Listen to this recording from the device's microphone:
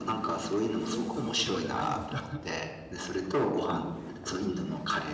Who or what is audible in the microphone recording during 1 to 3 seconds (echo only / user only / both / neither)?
both